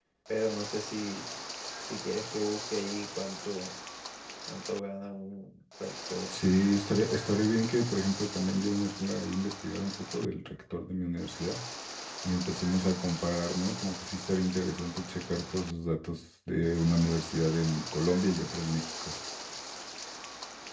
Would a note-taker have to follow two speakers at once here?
No

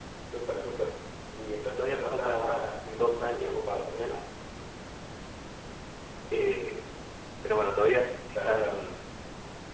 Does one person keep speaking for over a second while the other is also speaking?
Yes, from 1.6 s

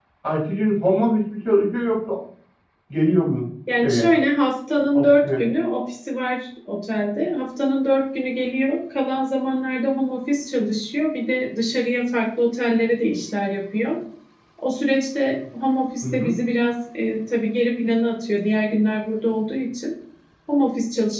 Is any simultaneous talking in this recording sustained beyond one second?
No

